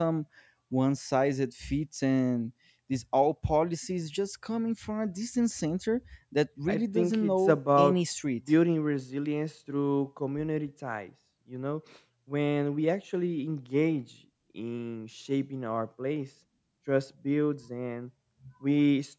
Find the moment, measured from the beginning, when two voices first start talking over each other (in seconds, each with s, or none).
6.7 s